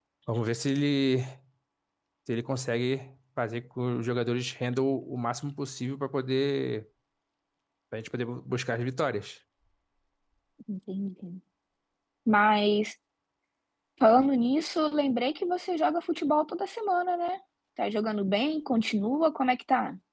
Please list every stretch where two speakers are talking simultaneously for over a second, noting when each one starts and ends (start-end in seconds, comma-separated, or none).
none